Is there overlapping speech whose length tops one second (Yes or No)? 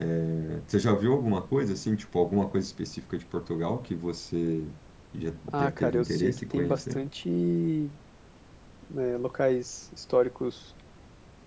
Yes